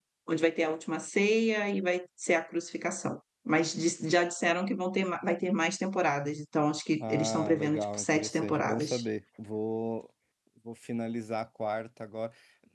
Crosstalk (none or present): present